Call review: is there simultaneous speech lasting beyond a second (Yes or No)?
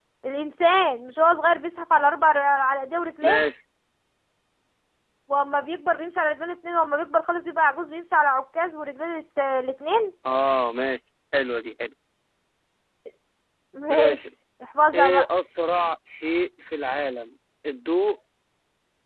No